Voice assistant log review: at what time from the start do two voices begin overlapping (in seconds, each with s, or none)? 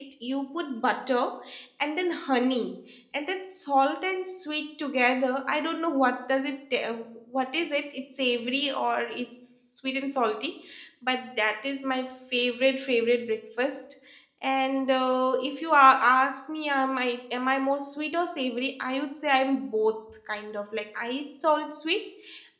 none